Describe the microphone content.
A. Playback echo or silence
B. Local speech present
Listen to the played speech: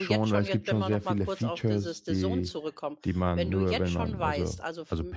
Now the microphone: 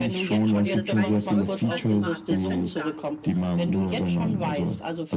B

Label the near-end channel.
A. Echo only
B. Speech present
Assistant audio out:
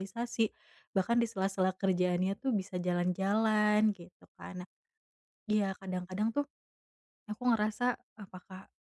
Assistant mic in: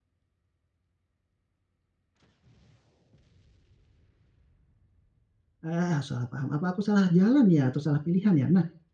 B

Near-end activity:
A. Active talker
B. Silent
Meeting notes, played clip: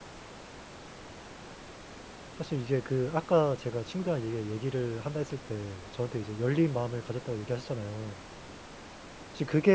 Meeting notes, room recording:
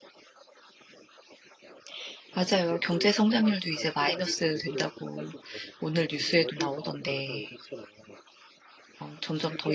A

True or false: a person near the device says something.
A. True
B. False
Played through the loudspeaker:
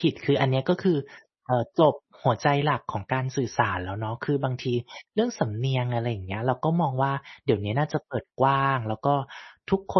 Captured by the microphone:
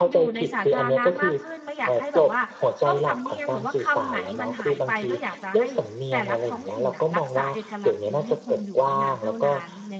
A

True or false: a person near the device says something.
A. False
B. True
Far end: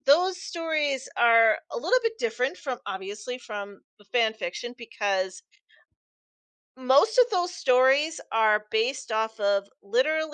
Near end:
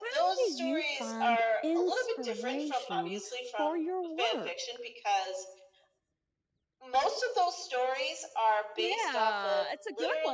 B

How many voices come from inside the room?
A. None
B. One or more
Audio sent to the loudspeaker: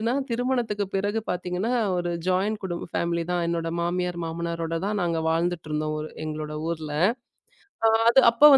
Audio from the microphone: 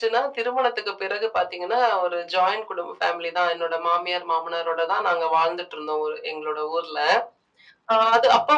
A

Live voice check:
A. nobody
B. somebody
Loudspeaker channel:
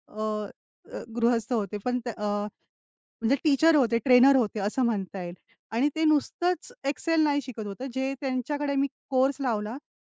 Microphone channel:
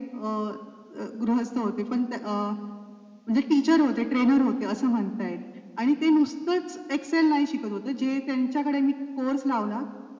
A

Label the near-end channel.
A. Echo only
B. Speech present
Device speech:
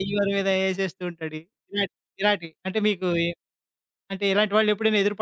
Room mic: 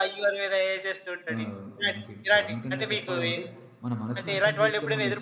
B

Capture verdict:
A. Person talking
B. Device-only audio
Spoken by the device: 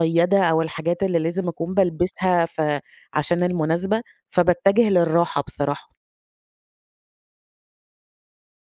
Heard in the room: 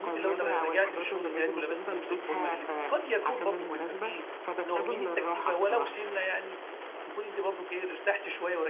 A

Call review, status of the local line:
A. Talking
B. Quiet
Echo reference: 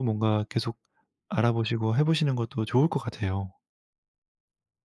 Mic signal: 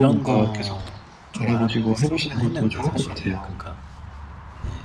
A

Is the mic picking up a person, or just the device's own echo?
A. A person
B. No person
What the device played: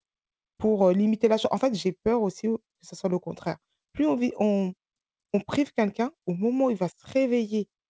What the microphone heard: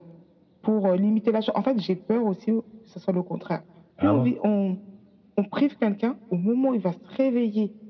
A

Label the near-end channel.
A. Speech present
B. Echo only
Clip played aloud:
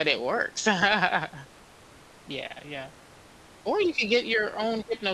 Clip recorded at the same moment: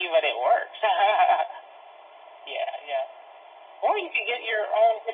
B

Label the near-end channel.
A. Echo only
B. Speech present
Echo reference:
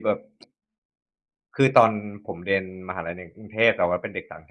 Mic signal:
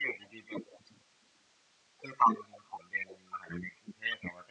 A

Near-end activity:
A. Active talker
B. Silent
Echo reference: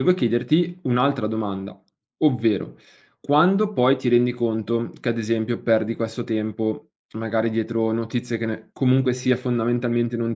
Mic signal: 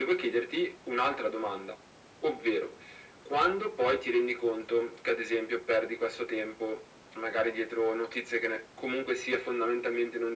B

